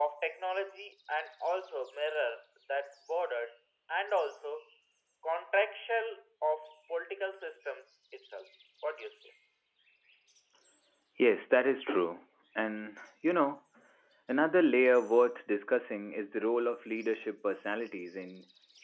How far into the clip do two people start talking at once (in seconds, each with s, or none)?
none